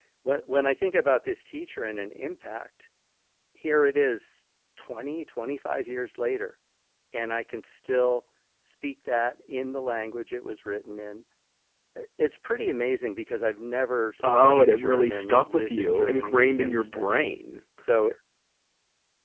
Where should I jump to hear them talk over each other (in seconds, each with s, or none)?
14.2 s